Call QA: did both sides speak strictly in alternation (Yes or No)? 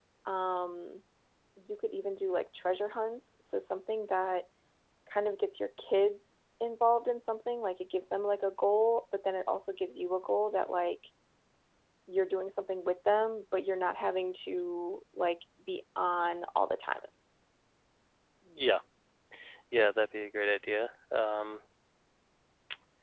Yes